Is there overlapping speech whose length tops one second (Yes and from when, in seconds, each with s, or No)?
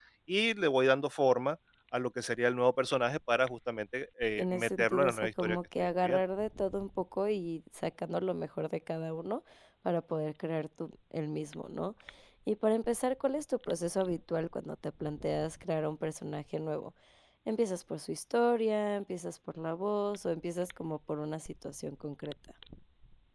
Yes, from 4.4 s